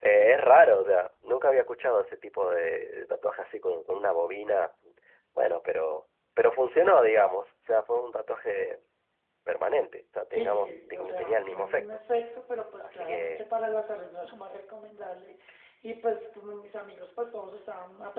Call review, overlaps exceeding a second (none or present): present